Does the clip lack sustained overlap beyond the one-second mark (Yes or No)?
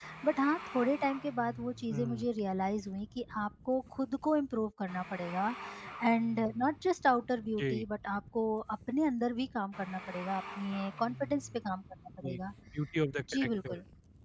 Yes